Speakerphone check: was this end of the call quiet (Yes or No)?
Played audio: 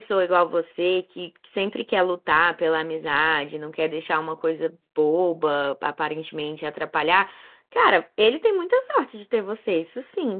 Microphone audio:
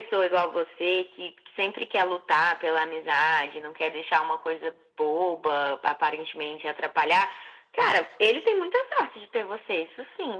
Yes